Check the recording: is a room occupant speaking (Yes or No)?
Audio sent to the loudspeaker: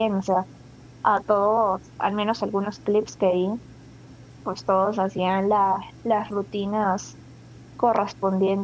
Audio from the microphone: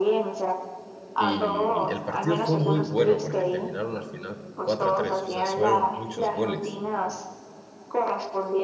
Yes